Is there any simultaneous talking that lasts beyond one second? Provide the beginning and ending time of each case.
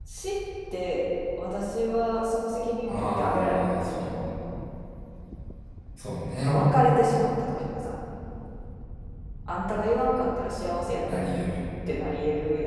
2.9-4.2

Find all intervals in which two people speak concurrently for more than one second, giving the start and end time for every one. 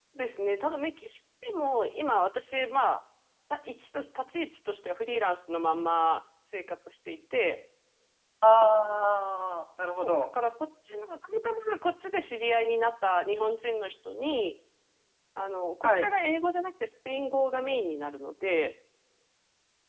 none

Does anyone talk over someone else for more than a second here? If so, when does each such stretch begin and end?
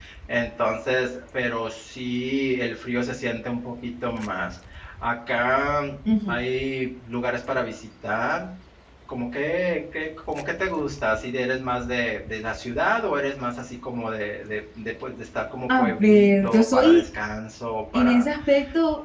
15.8-17.0

